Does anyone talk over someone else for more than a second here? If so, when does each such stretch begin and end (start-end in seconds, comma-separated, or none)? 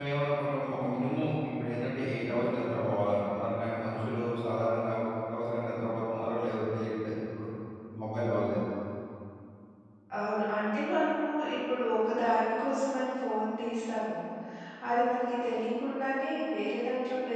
none